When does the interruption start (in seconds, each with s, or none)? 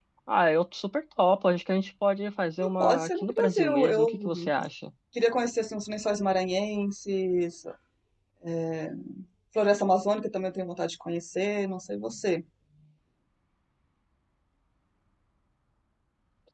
2.6 s